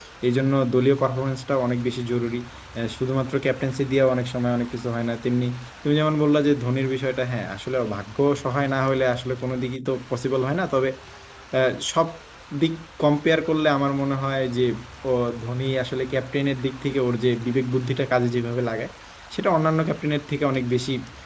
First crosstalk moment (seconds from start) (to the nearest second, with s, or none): none